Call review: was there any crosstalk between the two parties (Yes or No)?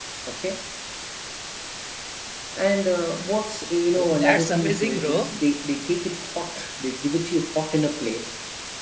Yes